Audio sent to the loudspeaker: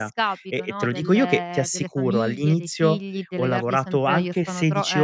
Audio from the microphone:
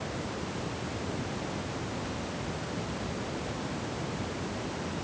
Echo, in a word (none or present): none